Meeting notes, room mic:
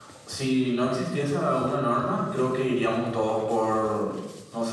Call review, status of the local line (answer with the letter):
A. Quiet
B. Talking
A